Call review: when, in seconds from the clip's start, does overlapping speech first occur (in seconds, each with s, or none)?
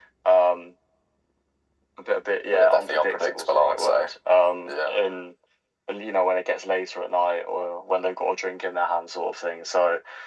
2.5 s